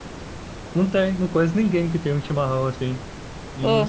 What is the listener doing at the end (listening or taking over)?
listening